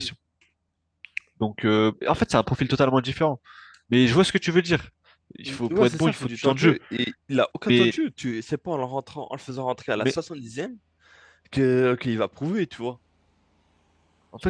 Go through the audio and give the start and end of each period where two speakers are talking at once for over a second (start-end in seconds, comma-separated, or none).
5.5-6.8